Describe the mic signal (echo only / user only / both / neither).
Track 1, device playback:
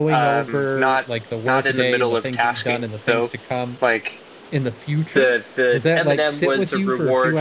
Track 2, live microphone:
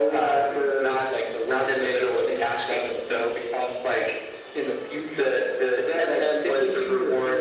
echo only